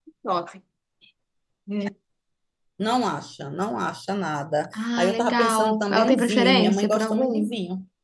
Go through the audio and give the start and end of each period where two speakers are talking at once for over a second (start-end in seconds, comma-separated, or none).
5.0-7.5